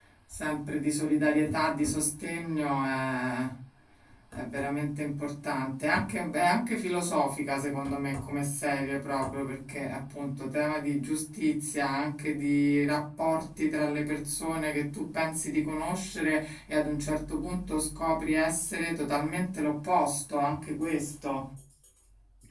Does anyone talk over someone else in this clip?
No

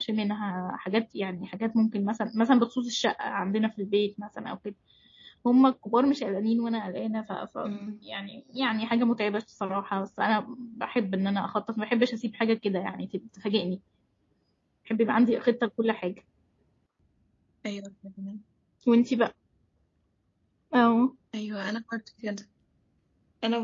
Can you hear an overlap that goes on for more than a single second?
No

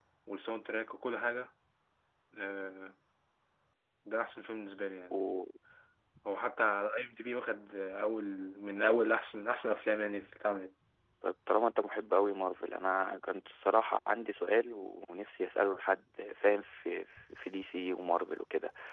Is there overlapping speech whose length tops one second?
No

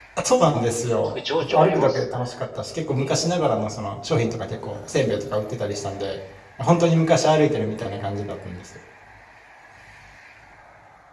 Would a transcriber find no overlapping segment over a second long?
No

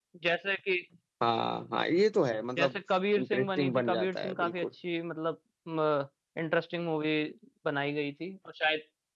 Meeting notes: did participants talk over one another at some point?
Yes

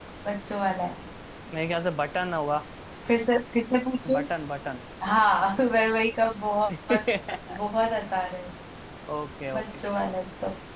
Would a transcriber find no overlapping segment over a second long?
Yes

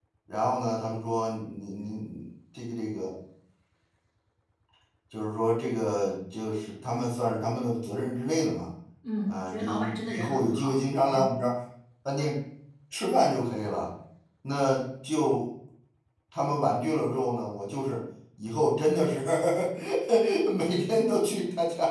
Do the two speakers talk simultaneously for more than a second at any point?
Yes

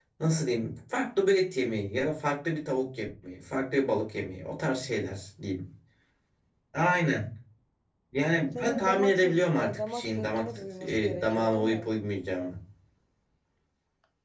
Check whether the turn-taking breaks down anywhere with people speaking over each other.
Yes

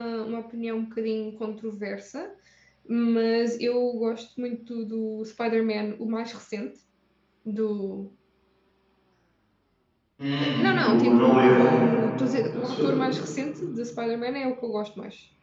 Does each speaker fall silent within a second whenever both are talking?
No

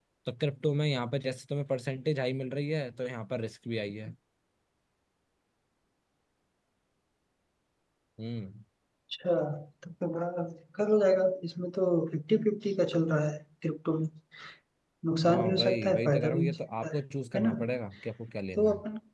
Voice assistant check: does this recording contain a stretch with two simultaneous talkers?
Yes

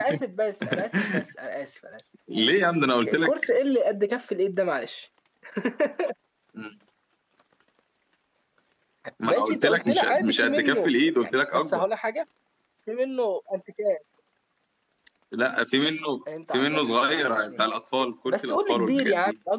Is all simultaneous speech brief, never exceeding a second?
No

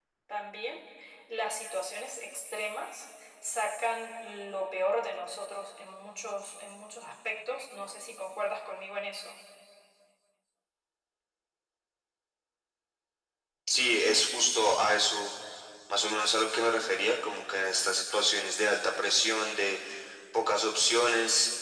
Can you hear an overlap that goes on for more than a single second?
No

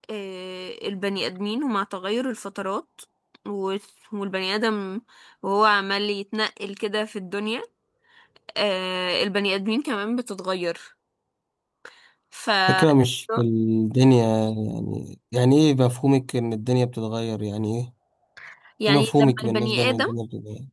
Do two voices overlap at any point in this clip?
Yes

